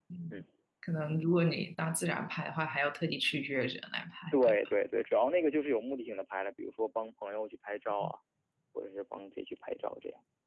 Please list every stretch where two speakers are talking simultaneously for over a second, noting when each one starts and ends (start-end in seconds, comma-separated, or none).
none